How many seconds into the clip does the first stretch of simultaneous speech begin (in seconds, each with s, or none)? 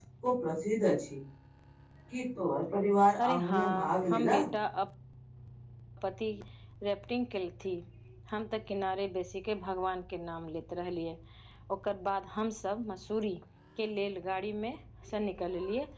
3.2 s